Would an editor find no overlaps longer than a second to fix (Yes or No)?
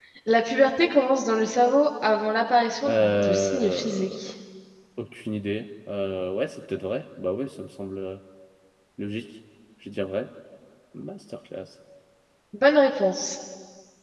No